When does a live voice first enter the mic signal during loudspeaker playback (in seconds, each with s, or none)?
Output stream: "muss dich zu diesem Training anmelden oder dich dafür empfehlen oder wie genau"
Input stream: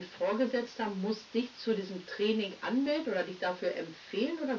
none